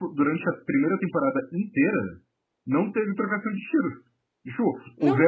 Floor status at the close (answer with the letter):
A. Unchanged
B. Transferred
A